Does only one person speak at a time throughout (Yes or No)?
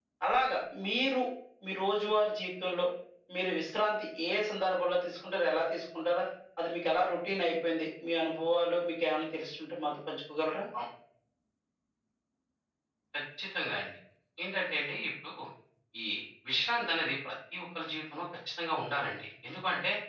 Yes